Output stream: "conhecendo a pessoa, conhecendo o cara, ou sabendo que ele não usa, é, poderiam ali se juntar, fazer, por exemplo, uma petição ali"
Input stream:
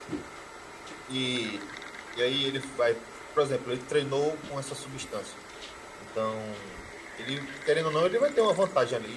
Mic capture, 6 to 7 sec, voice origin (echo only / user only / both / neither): user only